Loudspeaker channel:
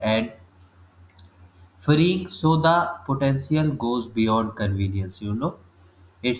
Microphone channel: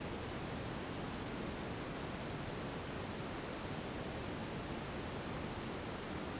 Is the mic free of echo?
Yes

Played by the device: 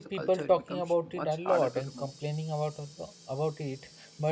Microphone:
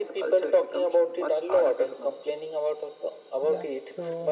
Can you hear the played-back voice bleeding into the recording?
Yes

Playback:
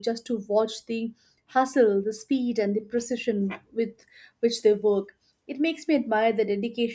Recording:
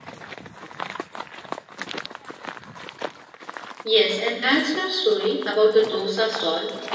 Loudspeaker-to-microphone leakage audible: No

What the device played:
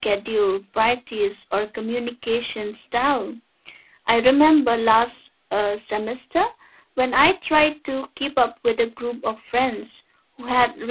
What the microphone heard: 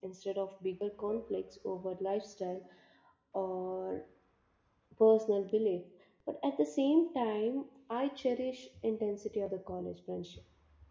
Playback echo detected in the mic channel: No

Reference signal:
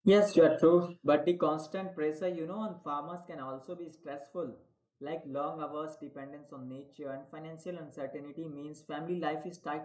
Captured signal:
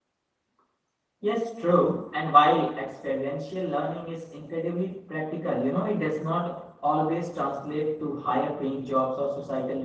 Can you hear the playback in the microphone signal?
No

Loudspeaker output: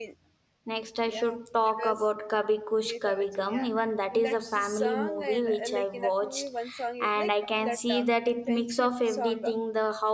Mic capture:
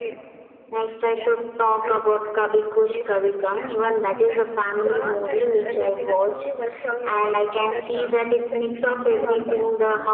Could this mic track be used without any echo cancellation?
No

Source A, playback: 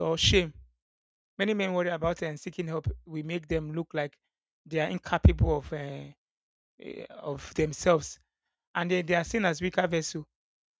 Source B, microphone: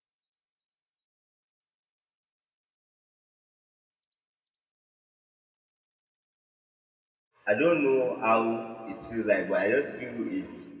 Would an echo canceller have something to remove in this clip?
No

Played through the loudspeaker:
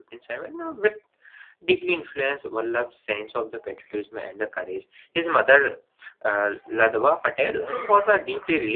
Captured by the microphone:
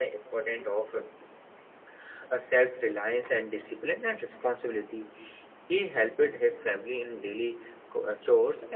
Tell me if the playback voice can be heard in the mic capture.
No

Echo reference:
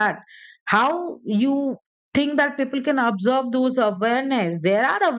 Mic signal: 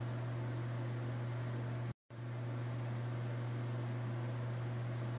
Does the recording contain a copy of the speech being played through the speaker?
No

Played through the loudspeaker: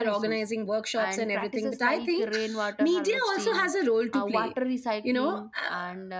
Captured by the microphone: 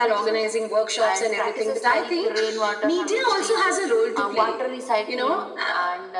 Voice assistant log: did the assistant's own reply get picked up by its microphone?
Yes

